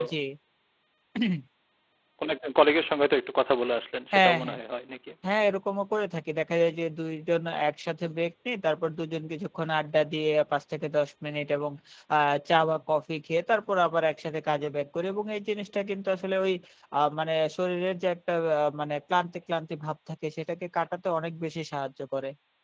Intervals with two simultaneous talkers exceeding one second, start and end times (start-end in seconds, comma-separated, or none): none